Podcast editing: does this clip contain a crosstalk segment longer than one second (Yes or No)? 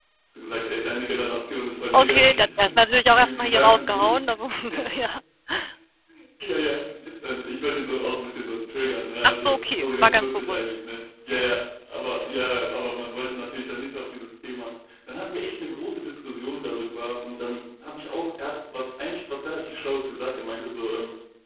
Yes